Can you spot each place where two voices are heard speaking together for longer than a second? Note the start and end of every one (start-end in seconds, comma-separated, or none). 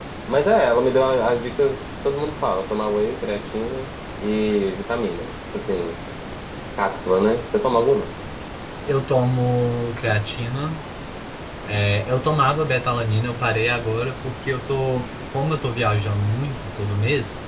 none